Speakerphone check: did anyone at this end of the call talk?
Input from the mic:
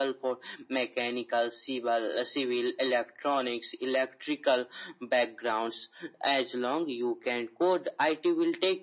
No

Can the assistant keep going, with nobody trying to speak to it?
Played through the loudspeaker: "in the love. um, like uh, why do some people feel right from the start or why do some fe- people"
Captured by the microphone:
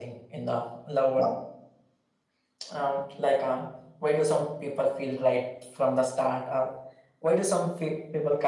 Yes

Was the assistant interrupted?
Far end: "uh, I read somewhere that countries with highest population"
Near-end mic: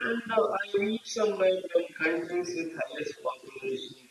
No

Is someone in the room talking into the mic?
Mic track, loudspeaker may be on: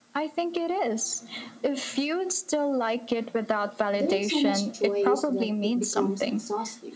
Yes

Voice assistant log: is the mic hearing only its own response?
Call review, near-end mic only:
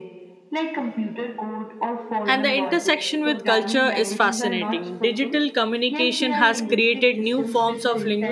No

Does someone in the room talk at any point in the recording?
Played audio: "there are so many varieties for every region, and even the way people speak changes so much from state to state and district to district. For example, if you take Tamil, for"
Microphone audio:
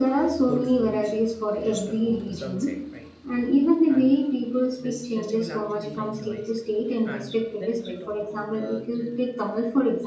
Yes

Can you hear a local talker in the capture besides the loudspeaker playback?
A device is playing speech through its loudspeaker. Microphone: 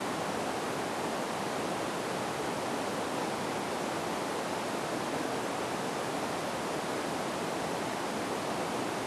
No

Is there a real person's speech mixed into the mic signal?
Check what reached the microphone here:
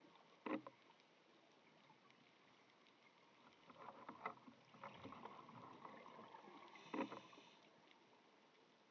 No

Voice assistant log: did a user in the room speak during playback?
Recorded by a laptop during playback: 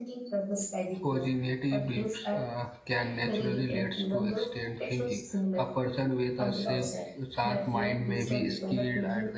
Yes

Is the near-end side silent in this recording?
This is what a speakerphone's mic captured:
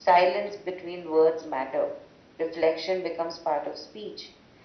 Yes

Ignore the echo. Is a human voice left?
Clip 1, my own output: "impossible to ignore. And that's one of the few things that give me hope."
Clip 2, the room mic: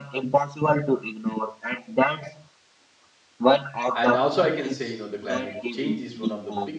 Yes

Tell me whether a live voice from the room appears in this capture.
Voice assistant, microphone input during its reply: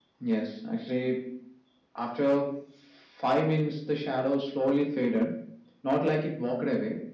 No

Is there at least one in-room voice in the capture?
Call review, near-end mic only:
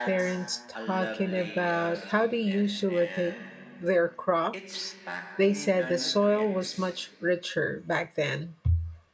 Yes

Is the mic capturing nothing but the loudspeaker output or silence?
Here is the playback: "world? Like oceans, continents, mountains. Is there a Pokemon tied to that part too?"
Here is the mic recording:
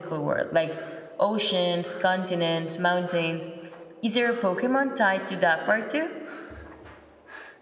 Yes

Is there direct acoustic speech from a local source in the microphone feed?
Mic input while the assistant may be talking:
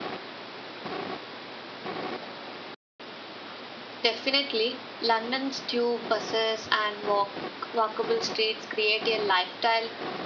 Yes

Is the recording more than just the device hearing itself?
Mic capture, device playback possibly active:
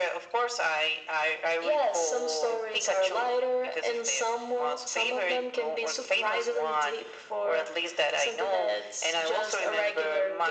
No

